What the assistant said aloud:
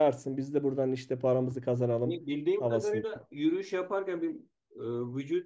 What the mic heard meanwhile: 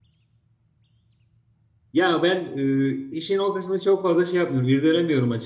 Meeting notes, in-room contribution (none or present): present